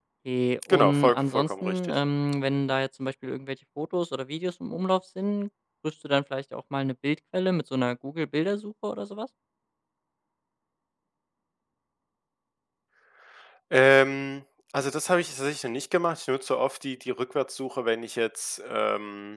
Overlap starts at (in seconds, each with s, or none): 0.7 s